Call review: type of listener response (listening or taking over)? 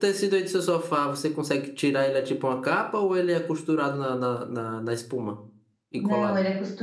taking over